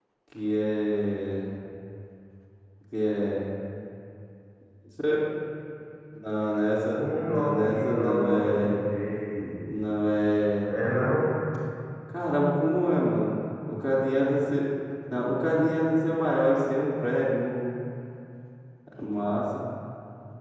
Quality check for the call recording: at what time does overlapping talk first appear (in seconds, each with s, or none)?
7.0 s